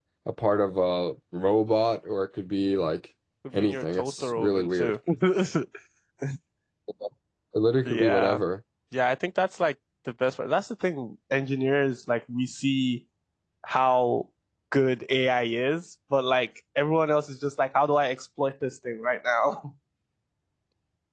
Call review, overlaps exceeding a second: present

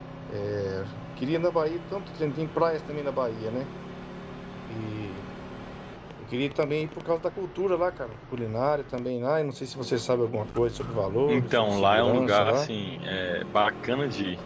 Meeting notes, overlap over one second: present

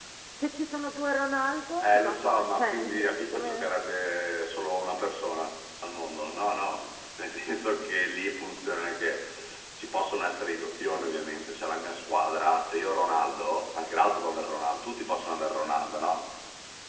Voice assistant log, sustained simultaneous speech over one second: present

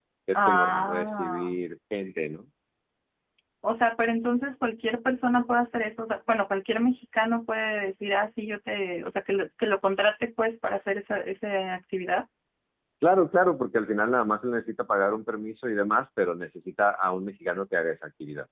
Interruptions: present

